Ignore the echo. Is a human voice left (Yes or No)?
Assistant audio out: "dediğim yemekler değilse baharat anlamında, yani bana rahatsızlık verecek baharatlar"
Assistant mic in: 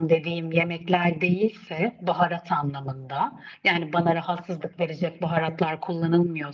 No